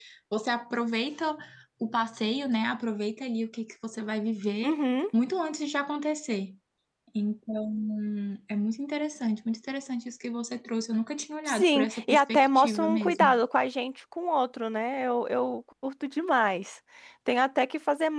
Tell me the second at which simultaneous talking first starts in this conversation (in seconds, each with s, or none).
11.5 s